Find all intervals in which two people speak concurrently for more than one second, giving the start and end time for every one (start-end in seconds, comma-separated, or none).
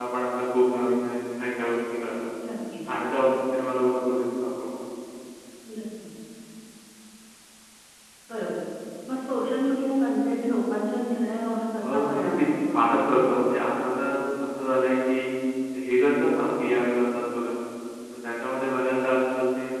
11.7-13.6